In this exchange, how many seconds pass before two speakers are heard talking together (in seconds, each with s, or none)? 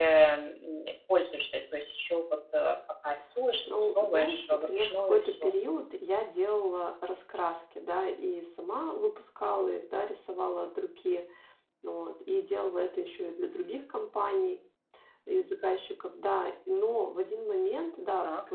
4.0 s